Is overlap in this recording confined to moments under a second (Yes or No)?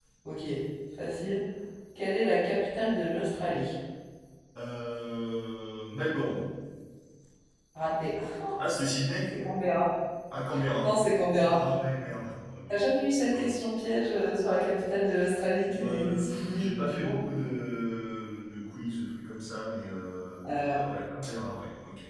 No